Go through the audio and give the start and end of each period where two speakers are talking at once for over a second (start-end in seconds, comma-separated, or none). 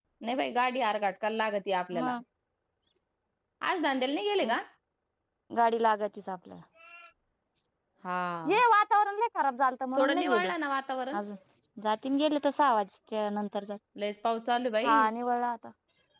none